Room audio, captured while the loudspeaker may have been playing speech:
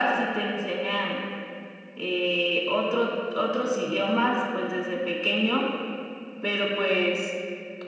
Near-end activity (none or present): none